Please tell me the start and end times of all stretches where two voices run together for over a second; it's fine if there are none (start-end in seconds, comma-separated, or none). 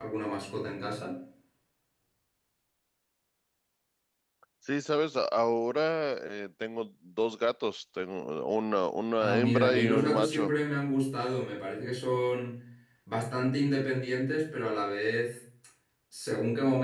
9.2-10.5